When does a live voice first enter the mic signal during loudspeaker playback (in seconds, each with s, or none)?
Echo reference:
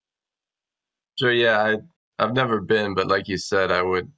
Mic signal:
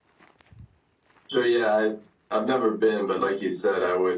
none